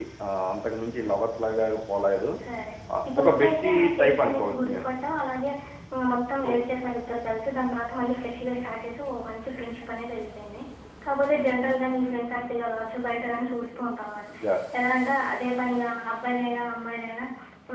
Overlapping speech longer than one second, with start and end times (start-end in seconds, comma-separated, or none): 3.2-4.8